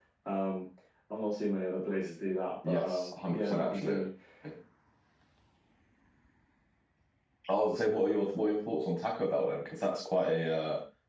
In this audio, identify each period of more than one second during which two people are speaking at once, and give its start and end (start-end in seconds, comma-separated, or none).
2.6-4.0